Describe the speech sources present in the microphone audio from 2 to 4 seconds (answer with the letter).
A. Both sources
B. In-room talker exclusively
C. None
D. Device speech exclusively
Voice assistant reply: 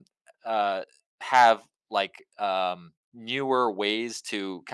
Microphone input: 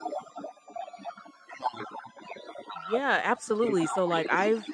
A